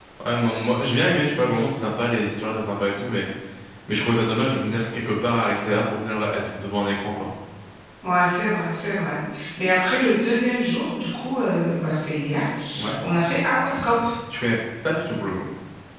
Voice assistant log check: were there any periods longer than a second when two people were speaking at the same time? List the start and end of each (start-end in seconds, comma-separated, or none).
none